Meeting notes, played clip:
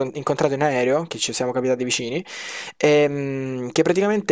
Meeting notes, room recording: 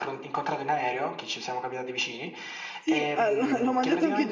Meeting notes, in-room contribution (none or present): present